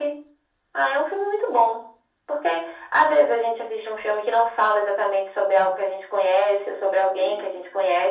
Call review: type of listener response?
listening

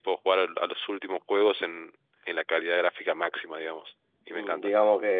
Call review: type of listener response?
taking over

